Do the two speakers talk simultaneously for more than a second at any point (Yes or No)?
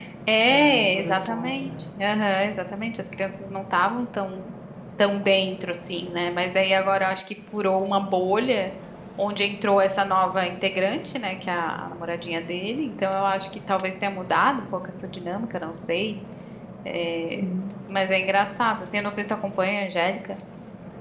Yes